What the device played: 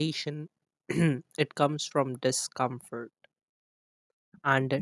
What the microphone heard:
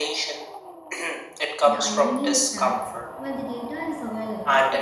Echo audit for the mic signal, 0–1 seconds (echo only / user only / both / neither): echo only